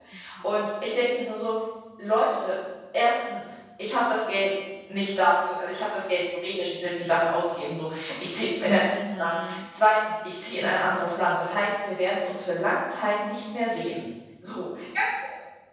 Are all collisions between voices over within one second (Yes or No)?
Yes